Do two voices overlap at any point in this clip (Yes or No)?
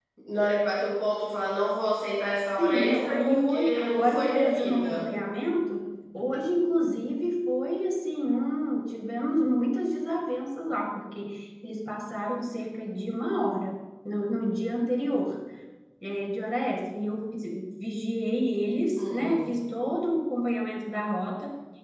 Yes